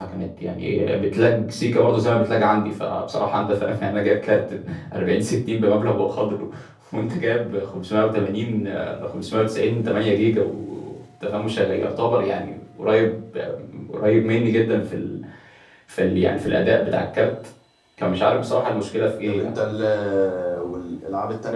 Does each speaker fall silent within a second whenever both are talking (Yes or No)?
Yes